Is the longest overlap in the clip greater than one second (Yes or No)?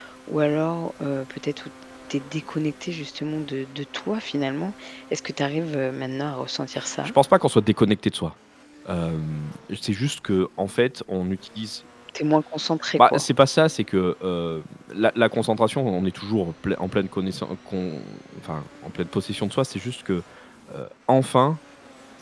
No